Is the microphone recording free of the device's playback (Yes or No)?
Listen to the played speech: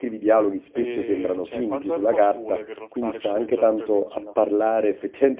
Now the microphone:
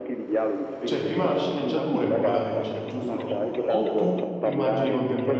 No